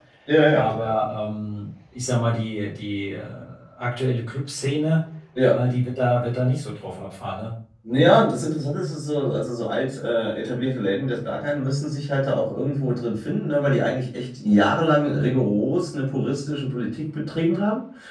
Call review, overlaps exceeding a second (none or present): none